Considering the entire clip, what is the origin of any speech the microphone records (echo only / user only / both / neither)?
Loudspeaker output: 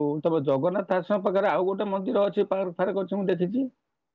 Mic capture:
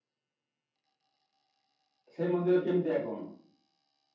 user only